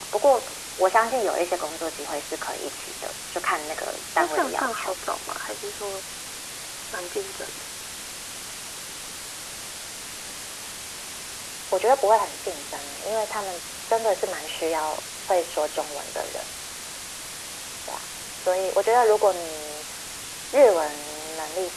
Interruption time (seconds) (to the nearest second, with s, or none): 4 s